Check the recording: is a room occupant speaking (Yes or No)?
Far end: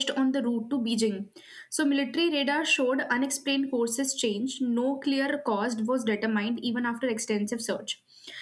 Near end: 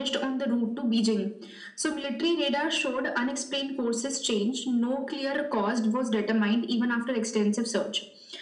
No